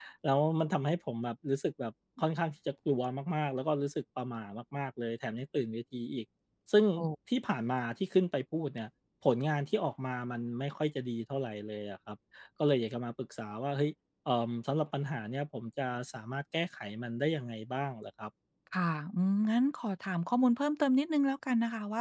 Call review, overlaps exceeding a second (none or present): none